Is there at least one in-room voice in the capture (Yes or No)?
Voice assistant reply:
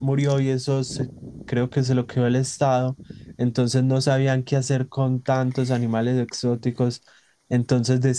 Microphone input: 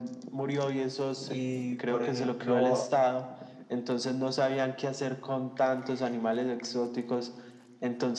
Yes